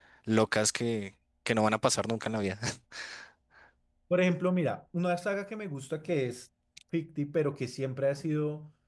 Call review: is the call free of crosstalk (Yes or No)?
Yes